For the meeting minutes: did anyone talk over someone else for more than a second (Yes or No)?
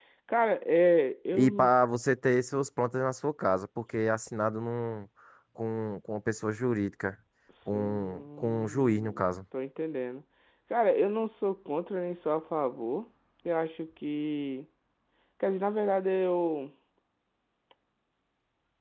Yes